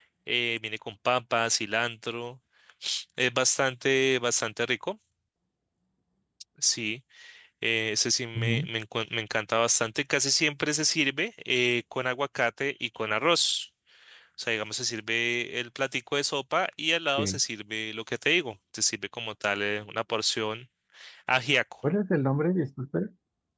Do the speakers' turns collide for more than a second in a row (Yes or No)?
No